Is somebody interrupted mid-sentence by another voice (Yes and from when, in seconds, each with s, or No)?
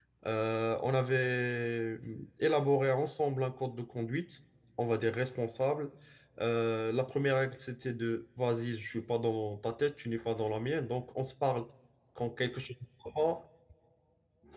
No